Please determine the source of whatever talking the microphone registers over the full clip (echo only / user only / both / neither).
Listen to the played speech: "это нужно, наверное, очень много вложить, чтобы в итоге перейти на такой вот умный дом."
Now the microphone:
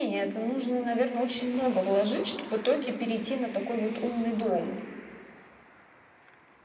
echo only